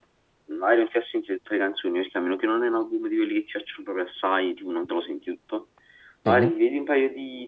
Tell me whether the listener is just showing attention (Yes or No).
Yes